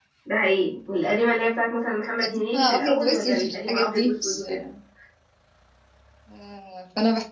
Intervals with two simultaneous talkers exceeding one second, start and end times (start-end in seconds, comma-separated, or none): 2.2-4.4